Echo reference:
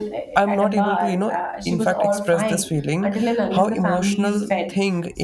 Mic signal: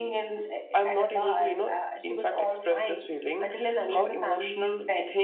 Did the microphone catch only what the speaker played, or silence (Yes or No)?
Yes